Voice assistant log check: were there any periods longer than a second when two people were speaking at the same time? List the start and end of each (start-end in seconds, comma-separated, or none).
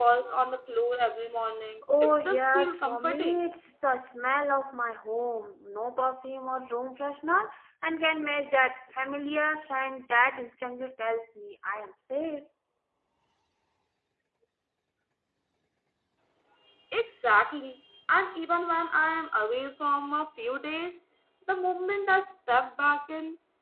2.0-3.4